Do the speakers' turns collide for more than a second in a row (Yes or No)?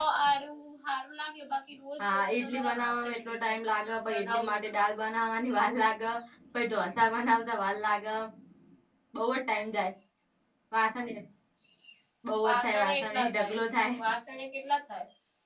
Yes